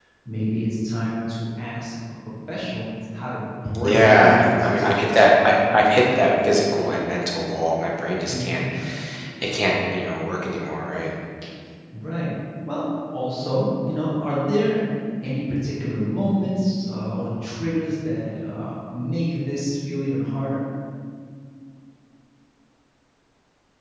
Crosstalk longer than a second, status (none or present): present